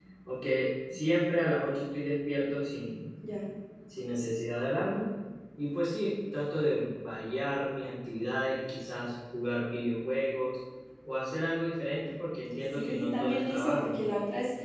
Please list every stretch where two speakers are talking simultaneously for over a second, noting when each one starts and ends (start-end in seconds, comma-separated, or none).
12.7-13.9